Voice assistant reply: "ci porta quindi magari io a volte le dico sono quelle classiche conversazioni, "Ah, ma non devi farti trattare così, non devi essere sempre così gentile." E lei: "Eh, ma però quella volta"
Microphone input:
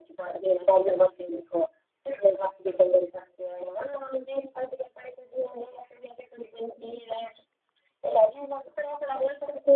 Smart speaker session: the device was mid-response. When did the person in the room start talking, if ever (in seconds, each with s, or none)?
none